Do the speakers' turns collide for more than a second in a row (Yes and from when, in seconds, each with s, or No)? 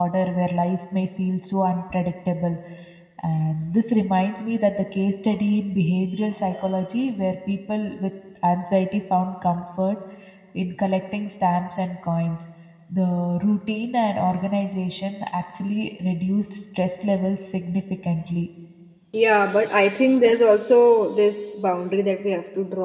No